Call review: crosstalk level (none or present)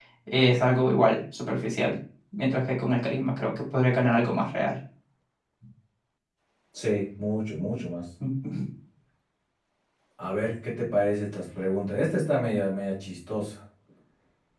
none